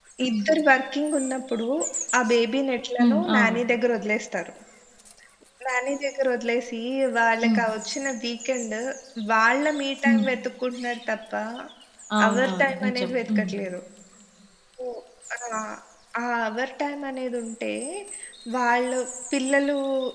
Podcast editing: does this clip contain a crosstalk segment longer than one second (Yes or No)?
Yes